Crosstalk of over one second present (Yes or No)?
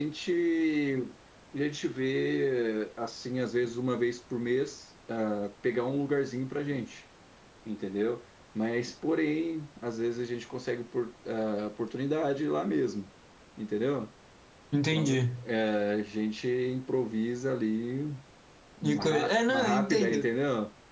Yes